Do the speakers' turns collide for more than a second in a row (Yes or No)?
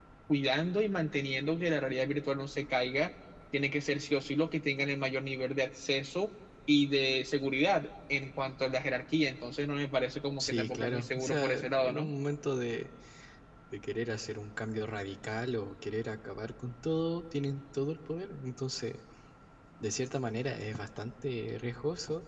Yes